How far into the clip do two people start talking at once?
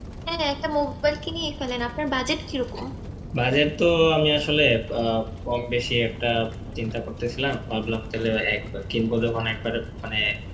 none

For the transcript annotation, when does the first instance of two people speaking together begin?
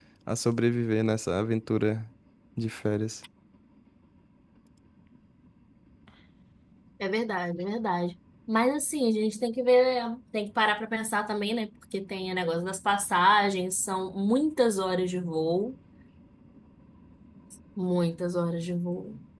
none

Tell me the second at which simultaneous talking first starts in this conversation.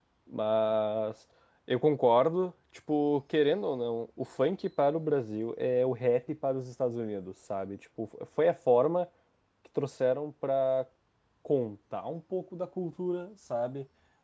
none

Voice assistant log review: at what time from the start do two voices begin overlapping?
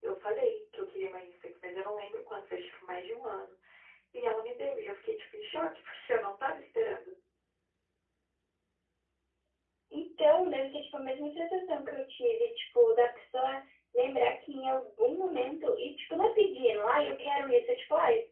none

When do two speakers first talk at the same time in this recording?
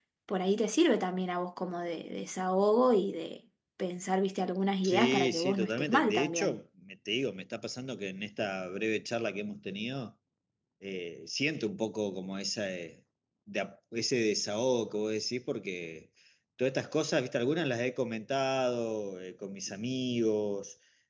4.8 s

